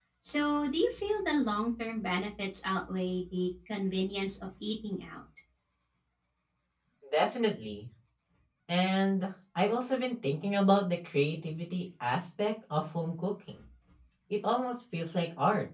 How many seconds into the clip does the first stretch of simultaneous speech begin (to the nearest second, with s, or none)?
none